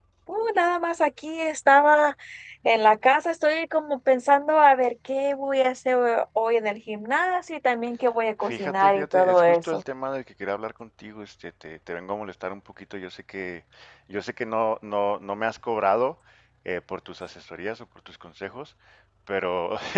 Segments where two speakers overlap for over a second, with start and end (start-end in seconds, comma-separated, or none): 8.4-9.8